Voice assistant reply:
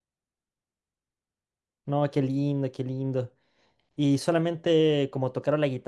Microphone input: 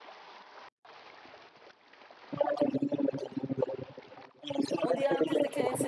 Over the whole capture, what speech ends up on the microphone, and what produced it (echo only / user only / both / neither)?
both